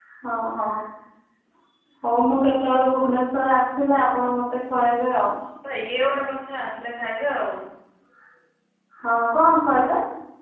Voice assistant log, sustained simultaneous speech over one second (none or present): none